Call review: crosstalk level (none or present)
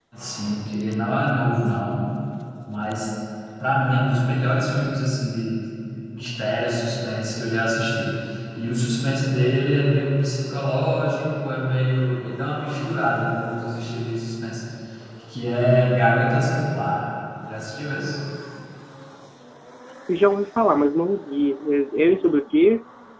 none